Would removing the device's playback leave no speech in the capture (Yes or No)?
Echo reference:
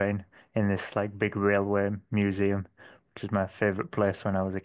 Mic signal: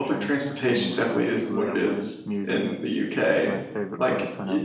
No